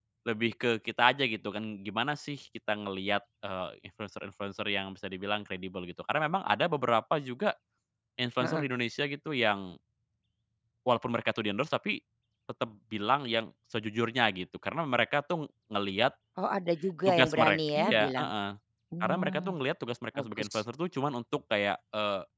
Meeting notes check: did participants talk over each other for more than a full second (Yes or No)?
Yes